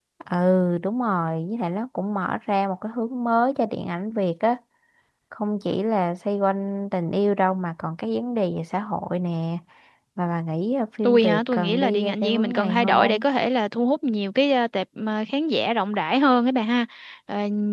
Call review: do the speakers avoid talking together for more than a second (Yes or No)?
No